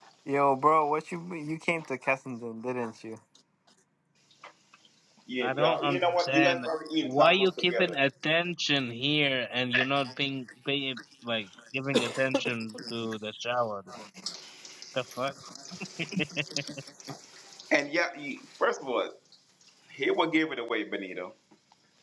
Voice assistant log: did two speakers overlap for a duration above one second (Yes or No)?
Yes